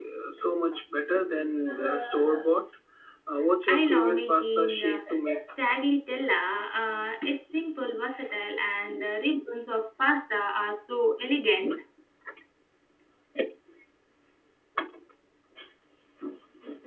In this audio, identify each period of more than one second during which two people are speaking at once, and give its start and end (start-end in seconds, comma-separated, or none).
3.8-5.0